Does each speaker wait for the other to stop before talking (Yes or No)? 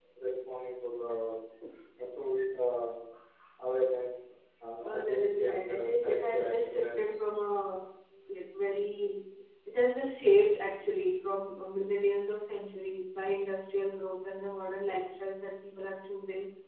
No